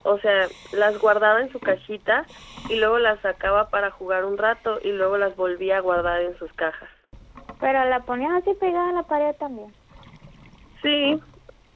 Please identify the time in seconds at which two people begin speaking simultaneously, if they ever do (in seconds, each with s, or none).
none